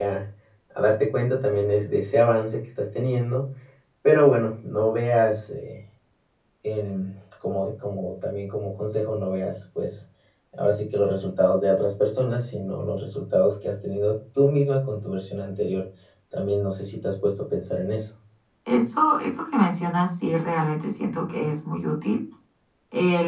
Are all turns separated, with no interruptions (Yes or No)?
Yes